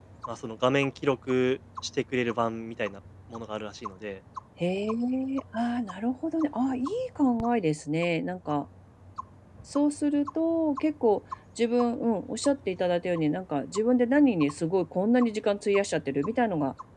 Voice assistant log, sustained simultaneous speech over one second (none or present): none